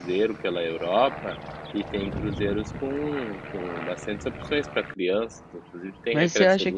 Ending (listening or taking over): taking over